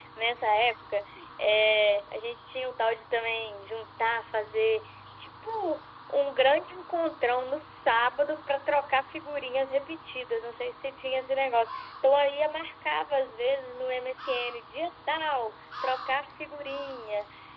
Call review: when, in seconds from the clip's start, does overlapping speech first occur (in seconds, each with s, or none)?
none